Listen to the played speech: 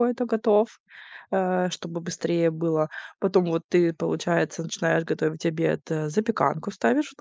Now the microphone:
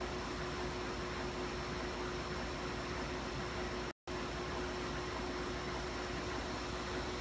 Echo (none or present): none